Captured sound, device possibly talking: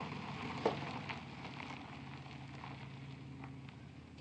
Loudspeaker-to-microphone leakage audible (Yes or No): No